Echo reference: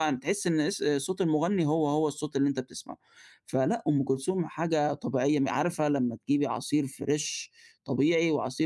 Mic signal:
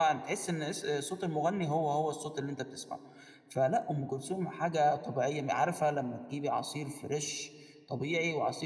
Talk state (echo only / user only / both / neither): echo only